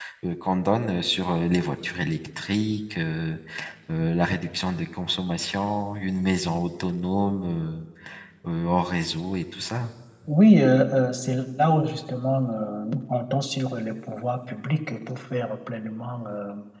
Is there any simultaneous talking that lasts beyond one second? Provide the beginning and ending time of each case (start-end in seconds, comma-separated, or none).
none